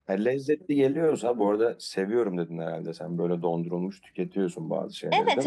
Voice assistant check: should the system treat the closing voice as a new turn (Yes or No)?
Yes